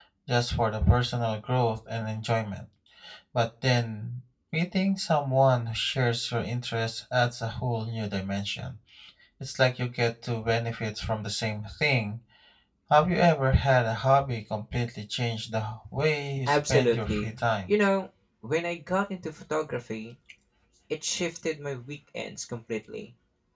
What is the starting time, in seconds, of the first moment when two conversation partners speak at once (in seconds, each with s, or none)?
16.5 s